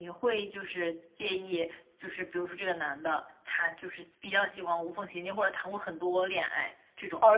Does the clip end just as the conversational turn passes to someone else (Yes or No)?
Yes